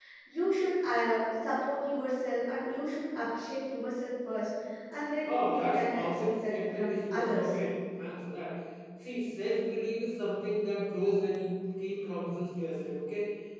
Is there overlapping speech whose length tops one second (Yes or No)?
Yes